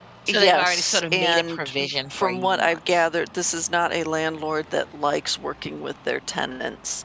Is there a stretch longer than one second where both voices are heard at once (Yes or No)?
Yes